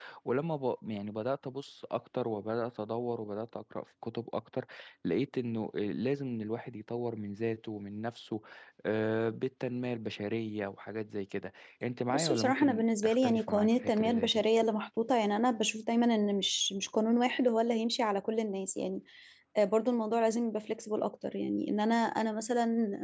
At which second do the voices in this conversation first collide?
12.1 s

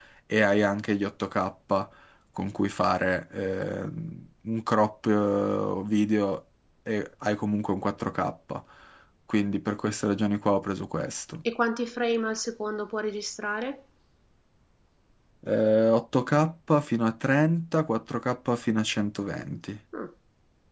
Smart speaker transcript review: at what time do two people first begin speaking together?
none

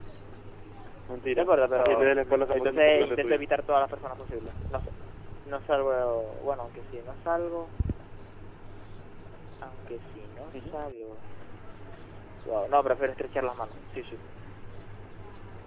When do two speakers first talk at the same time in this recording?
1.4 s

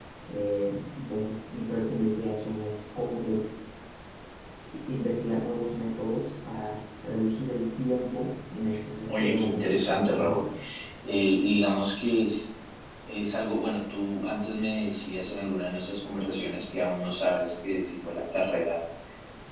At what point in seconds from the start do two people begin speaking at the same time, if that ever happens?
9.1 s

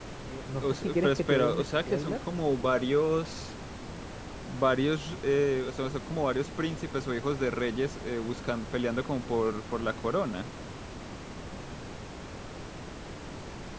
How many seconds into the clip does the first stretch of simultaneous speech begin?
0.6 s

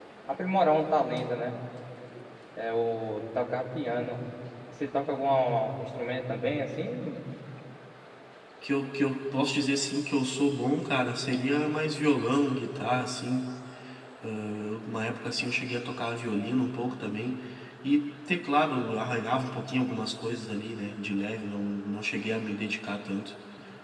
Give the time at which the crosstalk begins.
none

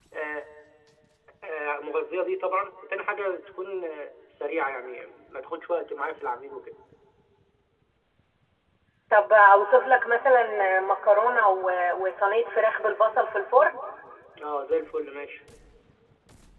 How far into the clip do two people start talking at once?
none

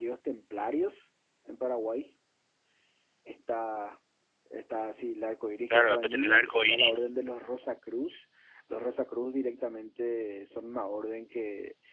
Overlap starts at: 5.7 s

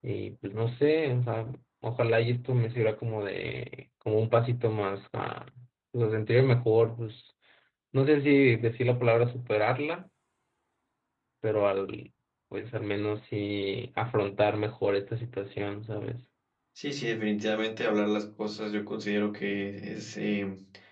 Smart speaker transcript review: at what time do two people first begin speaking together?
none

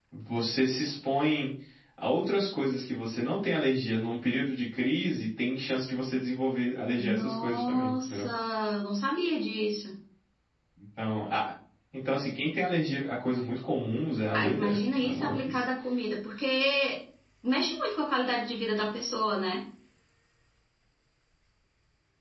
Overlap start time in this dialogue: 7.0 s

